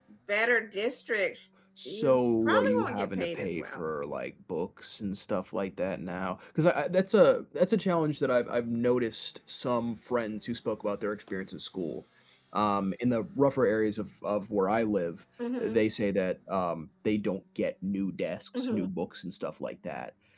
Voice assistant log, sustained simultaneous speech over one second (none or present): present